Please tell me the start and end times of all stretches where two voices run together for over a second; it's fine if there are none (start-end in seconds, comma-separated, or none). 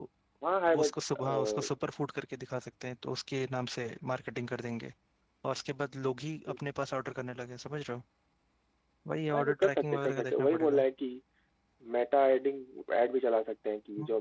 9.3-10.8